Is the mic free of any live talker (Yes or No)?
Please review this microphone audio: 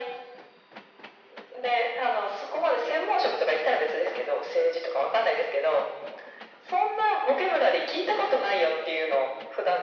Yes